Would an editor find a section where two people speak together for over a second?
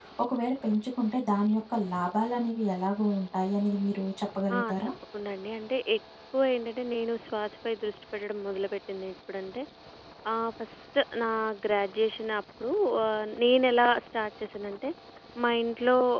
No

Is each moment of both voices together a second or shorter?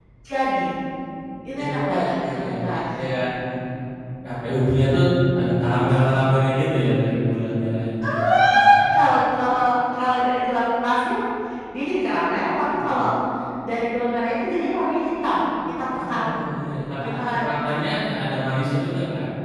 No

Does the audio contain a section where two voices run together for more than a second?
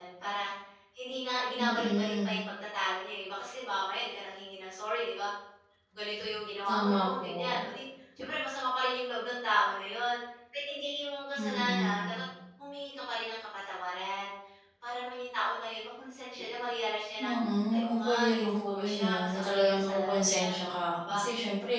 Yes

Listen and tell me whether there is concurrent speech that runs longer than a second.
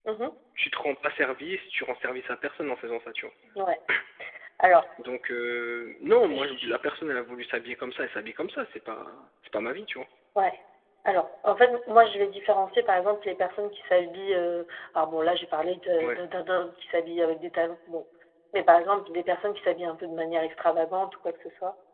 No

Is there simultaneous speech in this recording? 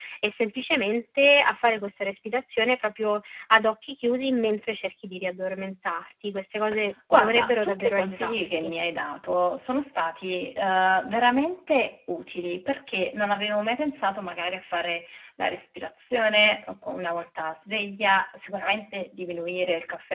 Yes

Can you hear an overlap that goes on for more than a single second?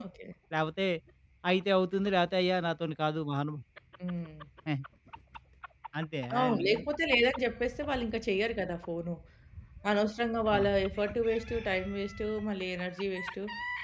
No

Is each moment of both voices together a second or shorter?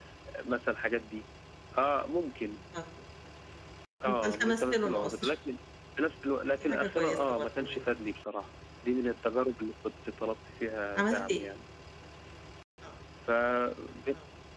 No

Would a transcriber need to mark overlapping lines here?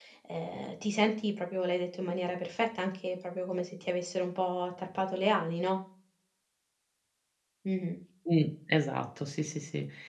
No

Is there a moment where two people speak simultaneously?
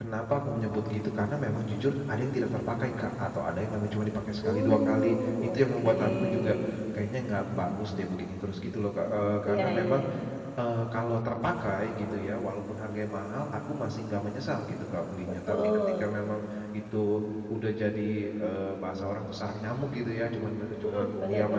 Yes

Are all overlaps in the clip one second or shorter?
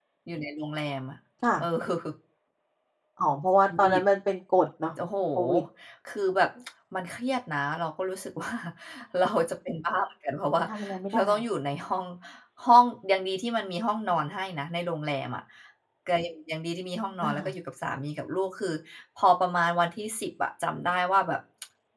Yes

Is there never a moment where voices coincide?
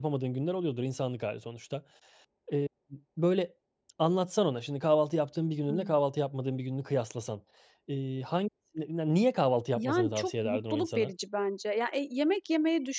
No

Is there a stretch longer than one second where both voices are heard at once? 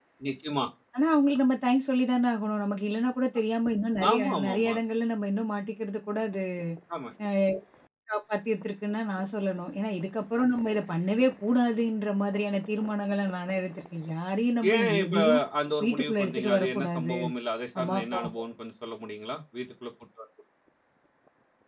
Yes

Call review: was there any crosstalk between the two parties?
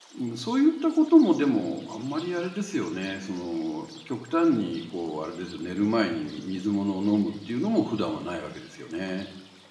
No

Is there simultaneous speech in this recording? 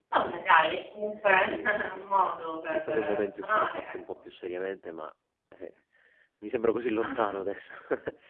Yes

